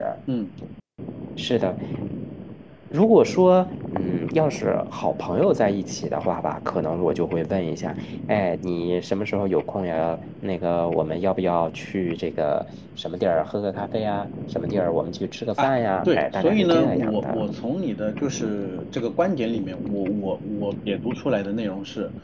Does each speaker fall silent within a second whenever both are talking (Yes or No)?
No